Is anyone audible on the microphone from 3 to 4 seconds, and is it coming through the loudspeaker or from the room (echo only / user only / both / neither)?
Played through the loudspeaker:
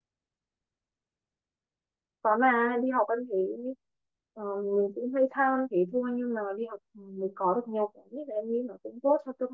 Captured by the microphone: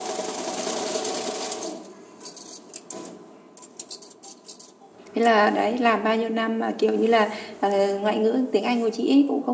neither